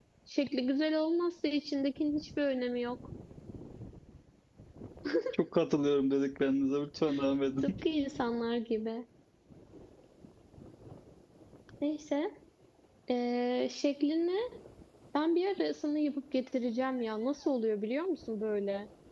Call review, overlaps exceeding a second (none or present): none